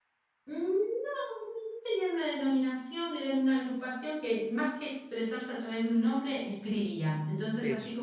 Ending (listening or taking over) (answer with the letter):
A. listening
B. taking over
A